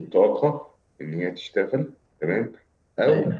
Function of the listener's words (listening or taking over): listening